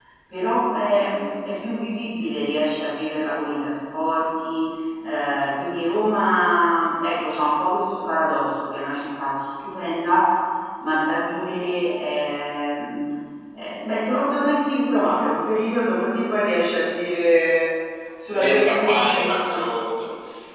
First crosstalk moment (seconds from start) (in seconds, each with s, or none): 18.3 s